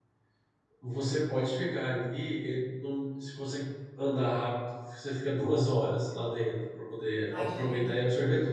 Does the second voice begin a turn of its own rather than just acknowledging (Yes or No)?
No